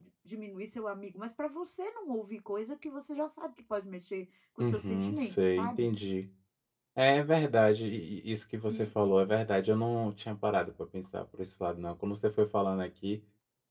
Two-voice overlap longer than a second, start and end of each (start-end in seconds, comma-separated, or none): 4.6-5.9